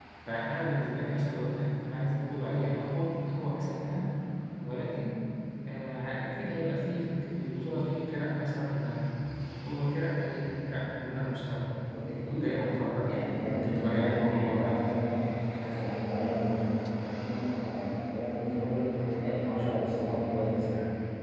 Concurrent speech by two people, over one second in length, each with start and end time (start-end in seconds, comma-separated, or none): 13.1-14.8